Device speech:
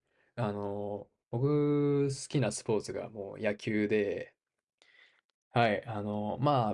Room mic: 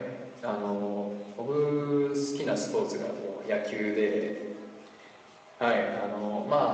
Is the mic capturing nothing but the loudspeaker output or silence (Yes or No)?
Yes